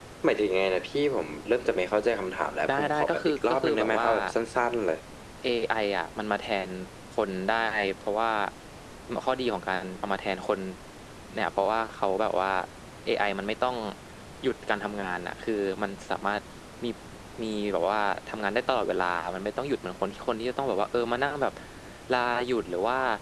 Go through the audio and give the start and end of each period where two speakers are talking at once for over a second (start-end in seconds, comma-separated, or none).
2.7-4.1